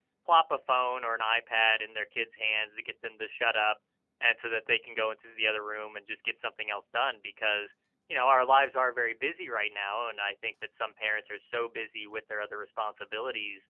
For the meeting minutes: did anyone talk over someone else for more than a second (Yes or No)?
No